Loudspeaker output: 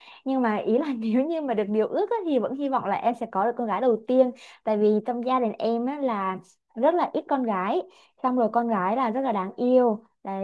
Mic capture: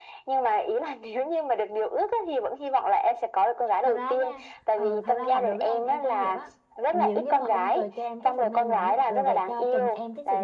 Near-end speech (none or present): present